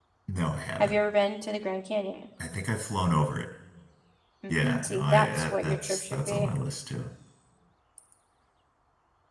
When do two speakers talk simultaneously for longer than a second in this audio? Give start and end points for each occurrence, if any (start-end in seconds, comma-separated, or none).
4.5-6.5